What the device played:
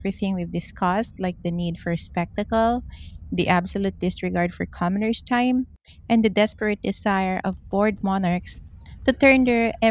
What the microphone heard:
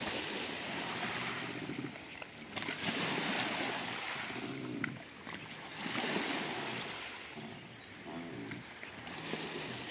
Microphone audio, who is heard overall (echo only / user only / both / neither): neither